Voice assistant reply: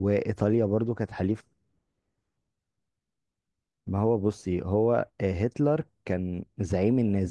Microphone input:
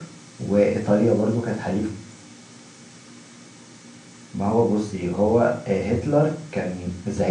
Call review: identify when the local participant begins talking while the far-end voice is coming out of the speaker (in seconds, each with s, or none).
none